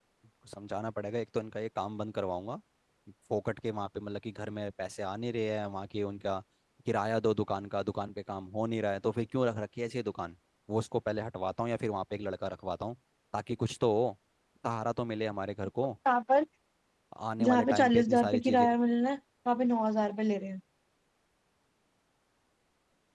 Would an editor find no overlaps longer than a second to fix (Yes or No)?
No